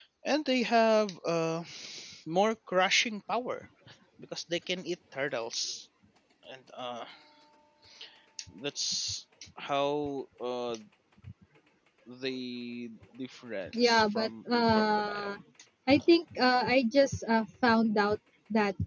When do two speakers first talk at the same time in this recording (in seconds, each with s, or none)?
13.7 s